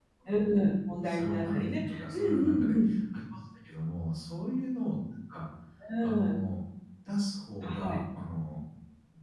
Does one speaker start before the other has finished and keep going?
Yes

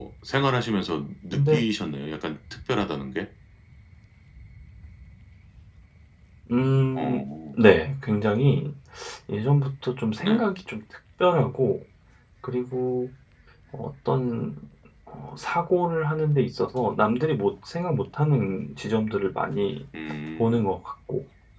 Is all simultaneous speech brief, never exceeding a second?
Yes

